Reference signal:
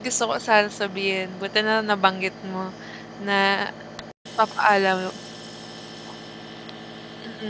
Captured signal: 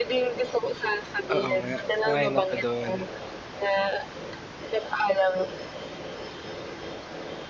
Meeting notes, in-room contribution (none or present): present